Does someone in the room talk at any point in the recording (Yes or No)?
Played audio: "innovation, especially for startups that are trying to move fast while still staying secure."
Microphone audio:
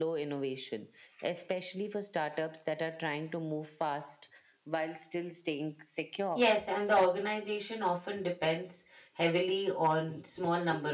Yes